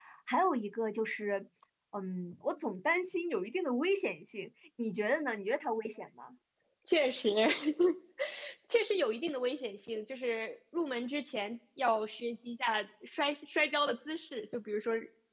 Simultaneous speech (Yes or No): No